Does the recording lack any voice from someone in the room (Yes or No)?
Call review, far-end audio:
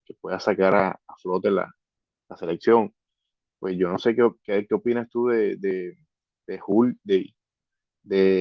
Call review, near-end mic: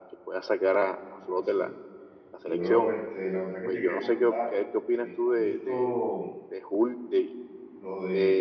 No